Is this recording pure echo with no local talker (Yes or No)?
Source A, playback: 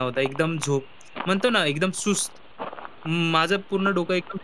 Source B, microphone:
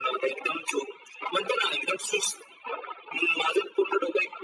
Yes